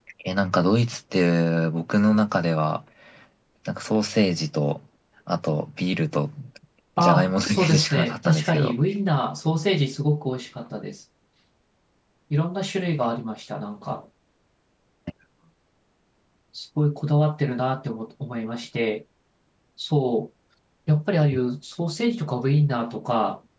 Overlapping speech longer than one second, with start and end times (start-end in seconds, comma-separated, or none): 7.0-8.8